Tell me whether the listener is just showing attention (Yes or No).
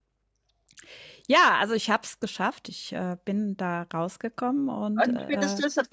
No